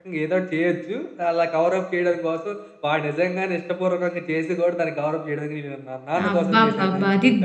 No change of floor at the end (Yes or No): No